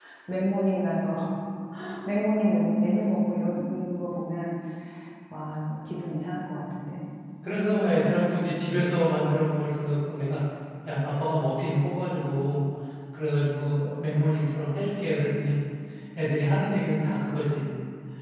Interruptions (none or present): none